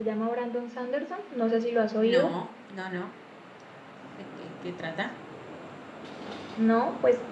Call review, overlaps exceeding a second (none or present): none